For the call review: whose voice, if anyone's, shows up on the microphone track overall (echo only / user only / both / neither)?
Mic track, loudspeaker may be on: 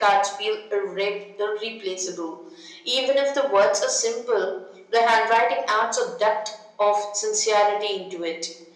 echo only